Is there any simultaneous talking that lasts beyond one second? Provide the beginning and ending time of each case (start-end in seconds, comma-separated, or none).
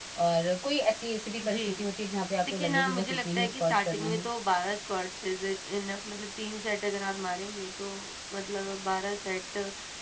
2.5-4.3